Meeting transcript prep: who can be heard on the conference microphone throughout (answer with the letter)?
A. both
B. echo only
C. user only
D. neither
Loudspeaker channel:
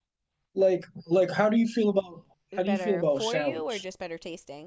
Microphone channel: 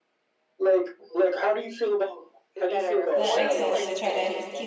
A